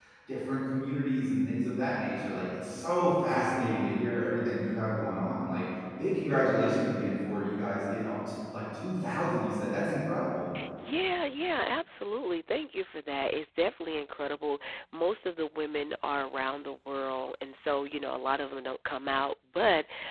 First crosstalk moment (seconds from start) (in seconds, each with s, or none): none